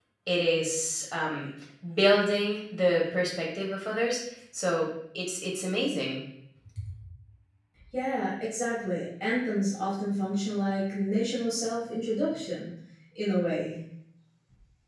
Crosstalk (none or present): none